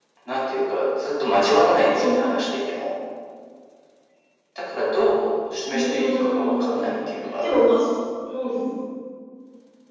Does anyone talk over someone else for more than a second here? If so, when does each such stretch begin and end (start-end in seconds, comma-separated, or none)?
5.7-6.9